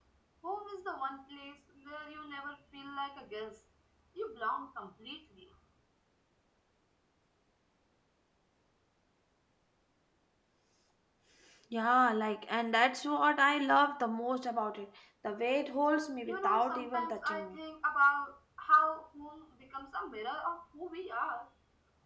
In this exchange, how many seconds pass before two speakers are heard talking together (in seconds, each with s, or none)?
16.3 s